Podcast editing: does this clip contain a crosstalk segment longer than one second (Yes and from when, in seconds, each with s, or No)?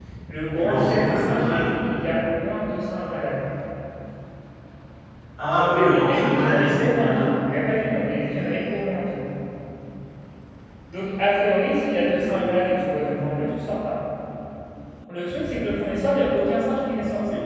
Yes, from 0.6 s